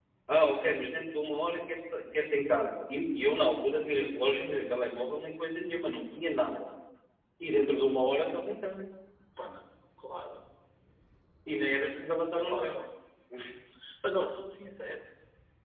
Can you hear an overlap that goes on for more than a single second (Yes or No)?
No